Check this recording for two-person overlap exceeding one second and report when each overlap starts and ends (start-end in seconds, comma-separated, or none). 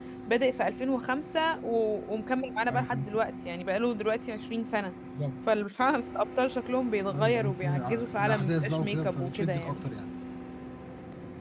7.1-9.8